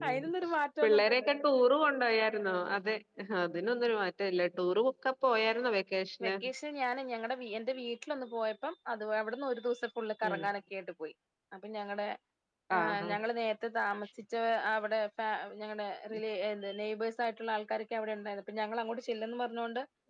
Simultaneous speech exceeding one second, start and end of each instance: none

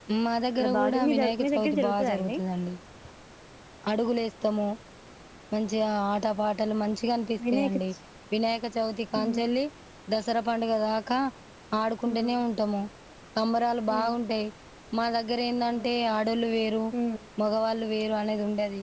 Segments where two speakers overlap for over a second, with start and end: 0.6-2.4

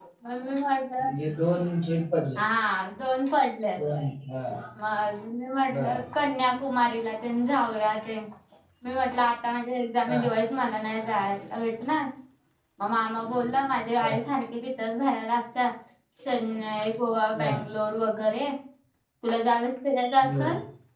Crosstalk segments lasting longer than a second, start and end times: none

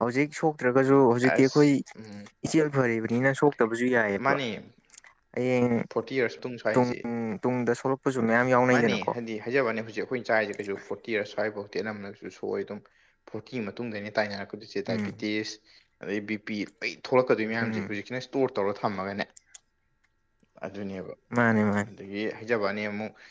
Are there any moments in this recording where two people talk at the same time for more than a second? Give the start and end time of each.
none

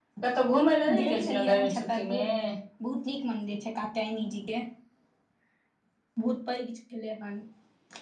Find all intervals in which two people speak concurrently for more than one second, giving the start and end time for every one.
1.0-2.2

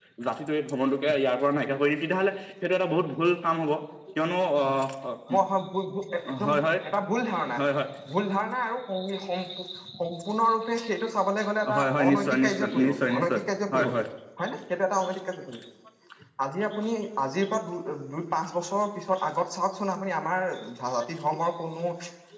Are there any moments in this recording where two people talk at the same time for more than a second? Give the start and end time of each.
11.8-13.4

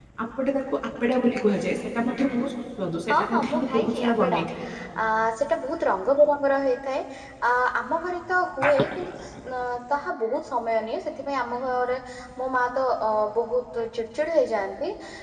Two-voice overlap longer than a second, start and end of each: 3.1-4.4

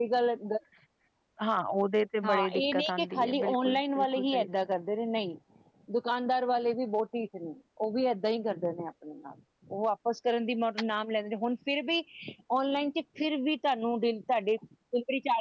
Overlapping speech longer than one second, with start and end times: 2.2-4.5

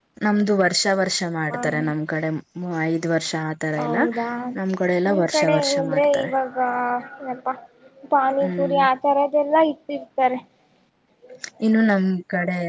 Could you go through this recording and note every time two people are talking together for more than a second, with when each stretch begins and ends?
5.0-6.3

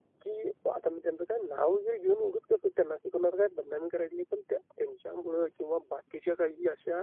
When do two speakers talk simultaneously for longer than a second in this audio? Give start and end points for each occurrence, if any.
none

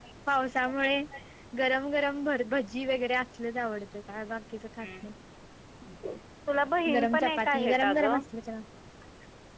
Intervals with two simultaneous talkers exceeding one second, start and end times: 6.9-8.2

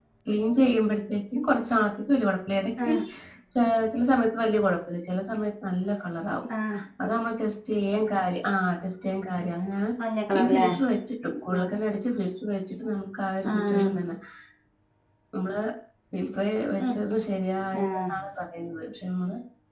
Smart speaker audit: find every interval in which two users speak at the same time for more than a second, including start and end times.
none

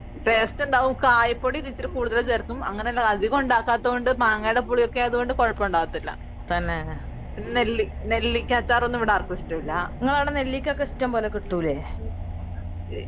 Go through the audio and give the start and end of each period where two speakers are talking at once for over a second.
none

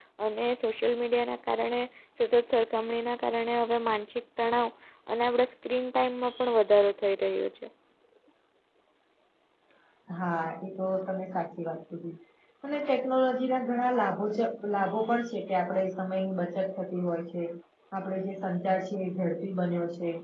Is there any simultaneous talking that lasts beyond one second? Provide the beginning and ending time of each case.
none

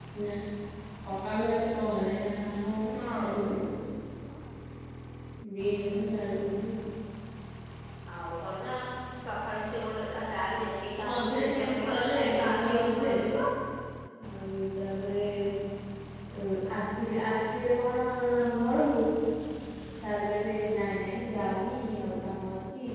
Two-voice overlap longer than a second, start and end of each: 11.1-13.1

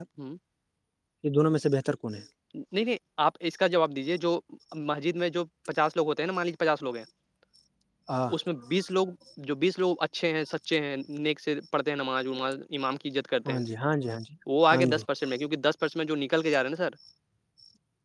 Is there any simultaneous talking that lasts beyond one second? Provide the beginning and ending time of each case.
none

